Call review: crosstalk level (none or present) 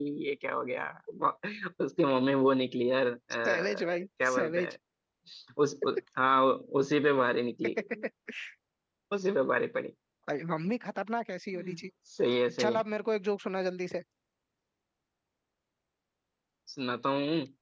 present